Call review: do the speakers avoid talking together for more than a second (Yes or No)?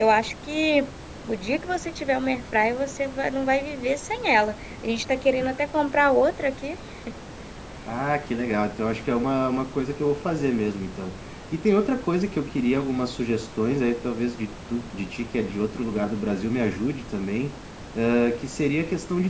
Yes